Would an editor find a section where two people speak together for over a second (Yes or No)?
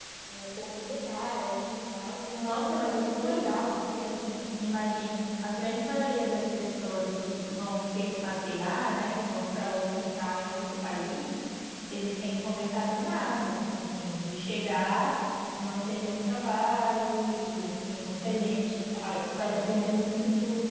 Yes